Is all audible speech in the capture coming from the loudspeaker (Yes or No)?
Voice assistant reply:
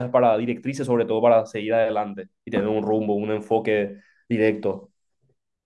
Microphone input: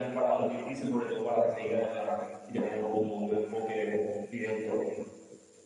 Yes